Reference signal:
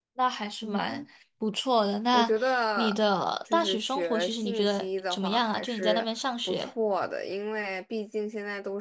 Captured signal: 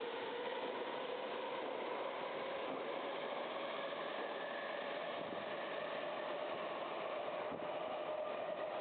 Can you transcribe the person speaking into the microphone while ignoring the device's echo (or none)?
none